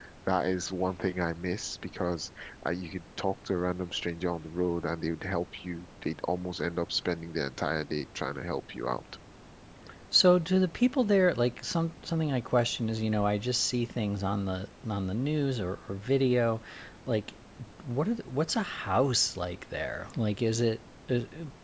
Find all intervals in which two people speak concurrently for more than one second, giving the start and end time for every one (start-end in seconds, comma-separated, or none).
none